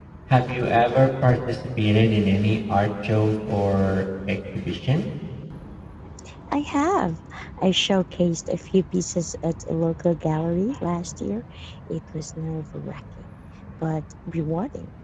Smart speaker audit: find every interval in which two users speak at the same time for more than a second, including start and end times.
none

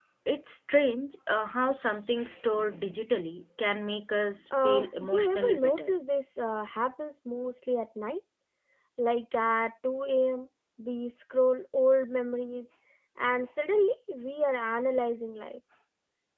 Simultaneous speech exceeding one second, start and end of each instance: 4.6-5.9

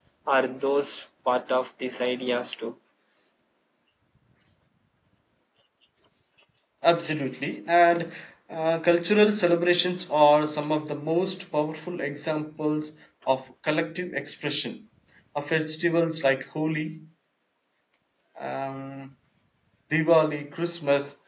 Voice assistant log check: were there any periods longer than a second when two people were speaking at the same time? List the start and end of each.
none

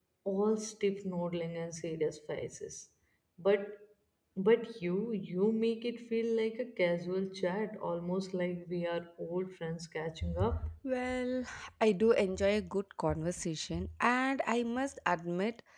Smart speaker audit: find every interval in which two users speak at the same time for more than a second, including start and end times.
none

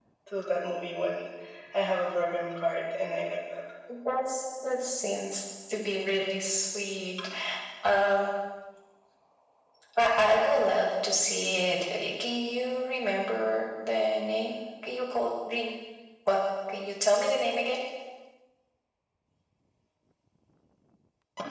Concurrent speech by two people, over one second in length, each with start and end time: none

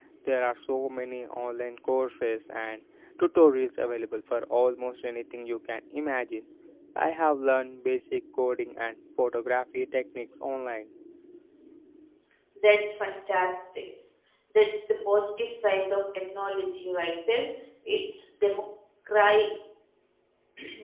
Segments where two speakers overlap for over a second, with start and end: none

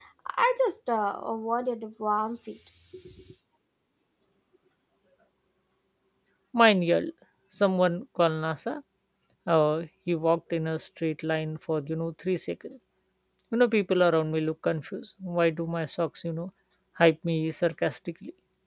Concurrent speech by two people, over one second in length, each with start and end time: none

